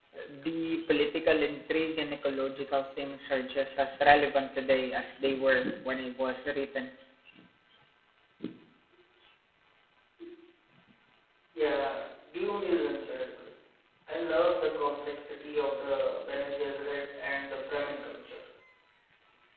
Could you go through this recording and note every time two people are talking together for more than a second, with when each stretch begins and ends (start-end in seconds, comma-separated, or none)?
none